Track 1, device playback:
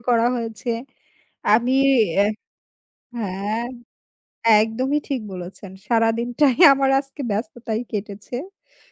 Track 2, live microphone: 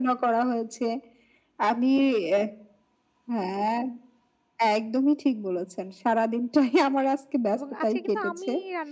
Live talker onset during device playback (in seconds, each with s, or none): 7.5 s